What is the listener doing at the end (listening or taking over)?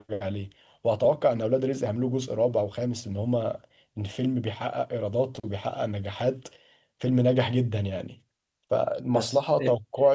listening